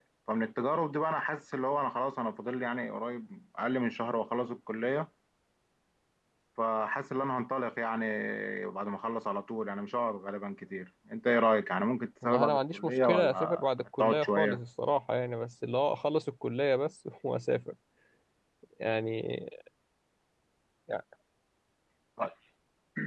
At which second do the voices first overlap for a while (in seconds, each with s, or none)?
12.2 s